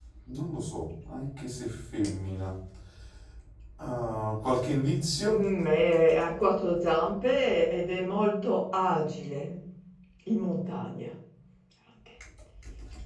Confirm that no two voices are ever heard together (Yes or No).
Yes